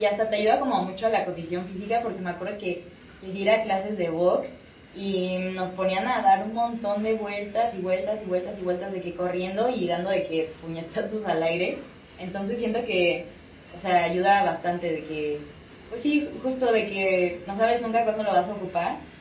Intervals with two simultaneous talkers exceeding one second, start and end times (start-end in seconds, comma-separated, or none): none